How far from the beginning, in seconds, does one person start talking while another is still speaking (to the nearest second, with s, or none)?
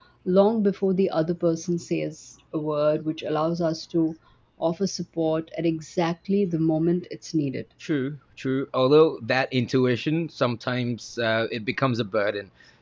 none